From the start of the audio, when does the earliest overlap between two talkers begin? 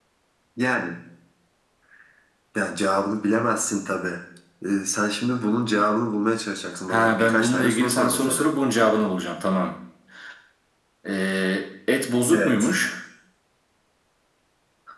6.9 s

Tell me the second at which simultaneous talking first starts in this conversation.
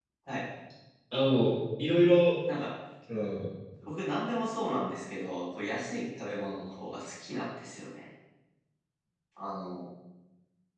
none

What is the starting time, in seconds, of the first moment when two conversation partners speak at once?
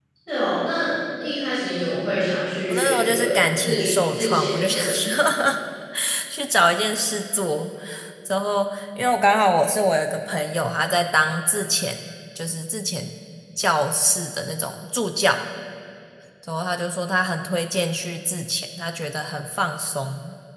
2.7 s

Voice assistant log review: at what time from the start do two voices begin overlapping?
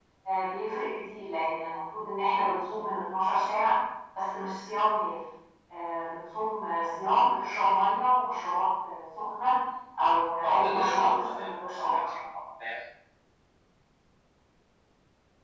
10.4 s

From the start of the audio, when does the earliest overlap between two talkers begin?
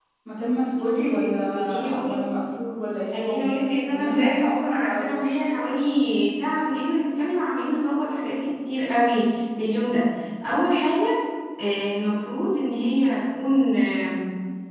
0.8 s

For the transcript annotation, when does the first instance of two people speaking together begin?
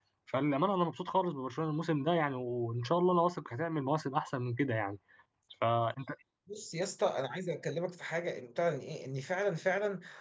none

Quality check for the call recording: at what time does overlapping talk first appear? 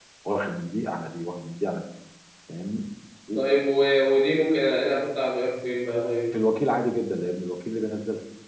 none

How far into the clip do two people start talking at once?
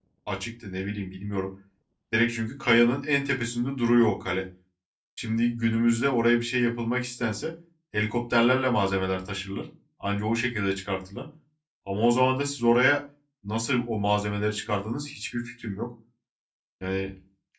none

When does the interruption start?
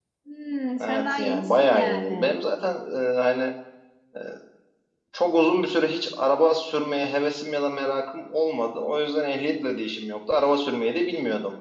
0.8 s

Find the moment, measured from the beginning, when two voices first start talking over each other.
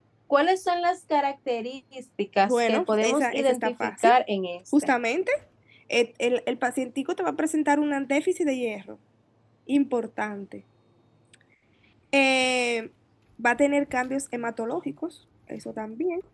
2.4 s

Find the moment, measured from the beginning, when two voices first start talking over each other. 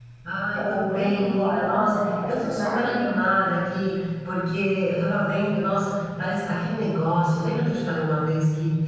0.6 s

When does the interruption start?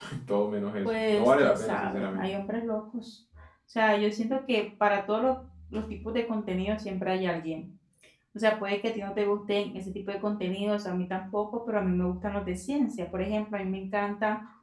0.8 s

